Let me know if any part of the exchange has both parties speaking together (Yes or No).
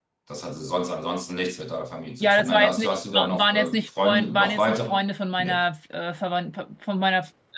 Yes